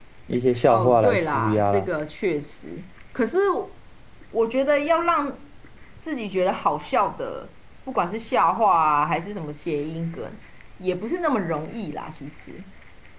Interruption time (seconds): 0.7 s

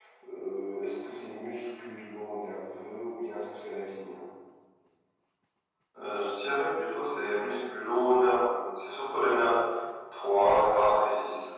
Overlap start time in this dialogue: none

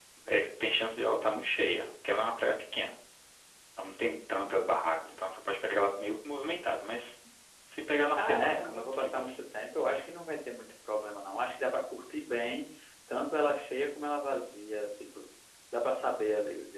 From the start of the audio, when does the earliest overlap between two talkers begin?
8.2 s

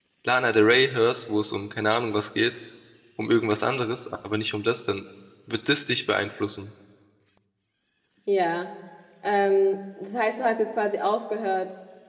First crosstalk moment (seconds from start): none

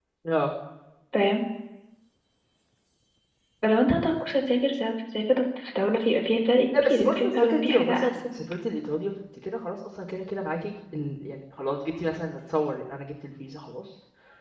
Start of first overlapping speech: 6.7 s

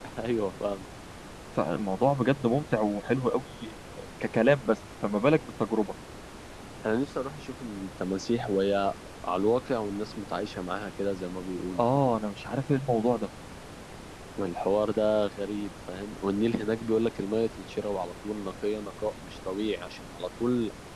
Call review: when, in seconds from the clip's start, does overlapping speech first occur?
none

